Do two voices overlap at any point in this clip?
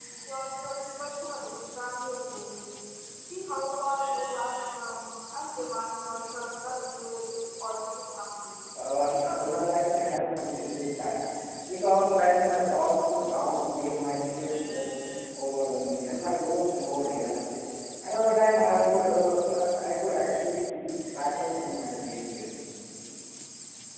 Yes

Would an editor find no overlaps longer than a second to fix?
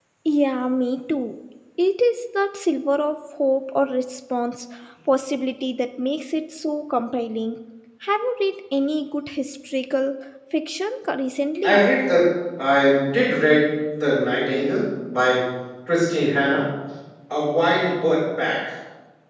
Yes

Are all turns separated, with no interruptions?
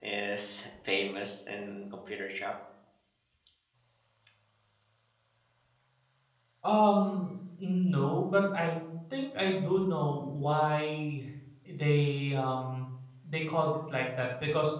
Yes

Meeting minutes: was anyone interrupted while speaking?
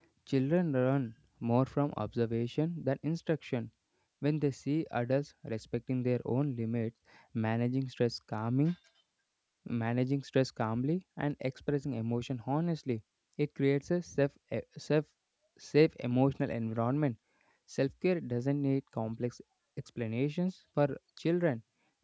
No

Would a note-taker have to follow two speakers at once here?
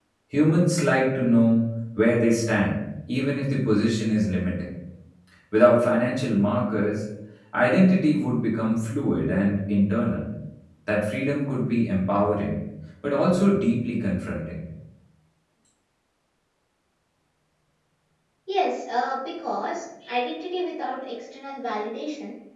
No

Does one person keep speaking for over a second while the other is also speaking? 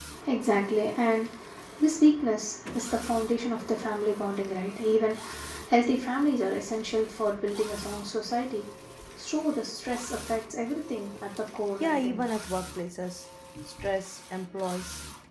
No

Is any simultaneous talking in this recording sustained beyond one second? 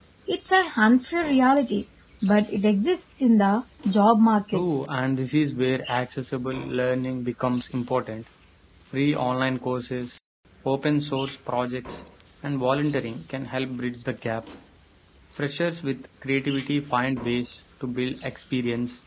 No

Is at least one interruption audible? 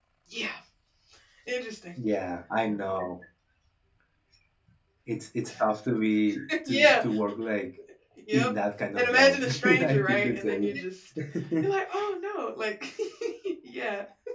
Yes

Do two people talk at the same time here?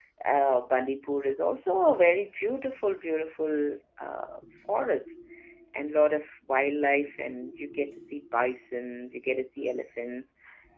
No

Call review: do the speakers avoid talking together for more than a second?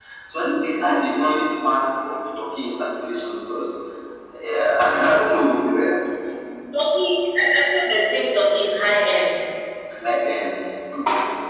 Yes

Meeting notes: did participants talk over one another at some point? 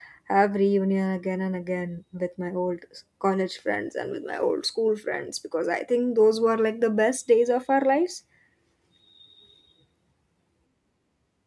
No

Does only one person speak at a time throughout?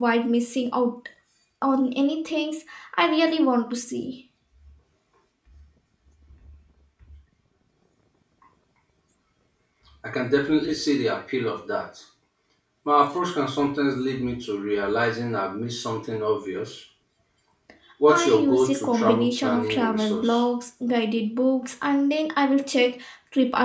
No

